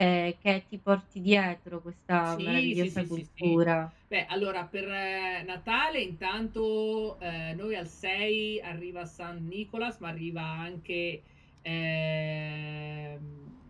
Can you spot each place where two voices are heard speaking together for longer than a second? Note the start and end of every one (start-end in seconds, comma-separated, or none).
2.2-3.6